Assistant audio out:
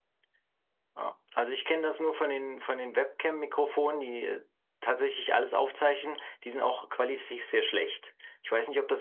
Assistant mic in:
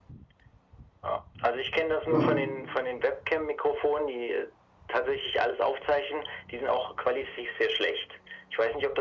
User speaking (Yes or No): Yes